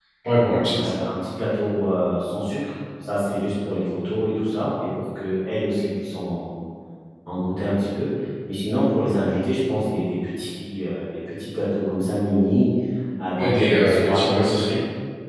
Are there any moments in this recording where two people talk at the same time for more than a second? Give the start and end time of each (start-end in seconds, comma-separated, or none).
13.4-14.6